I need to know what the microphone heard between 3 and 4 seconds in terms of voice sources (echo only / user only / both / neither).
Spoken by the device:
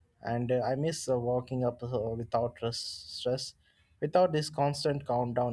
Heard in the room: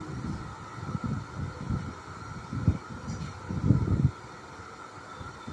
neither